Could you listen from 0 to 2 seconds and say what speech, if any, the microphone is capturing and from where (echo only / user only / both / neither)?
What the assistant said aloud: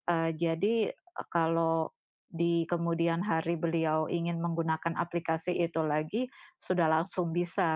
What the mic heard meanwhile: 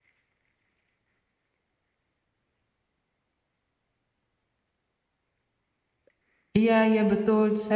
neither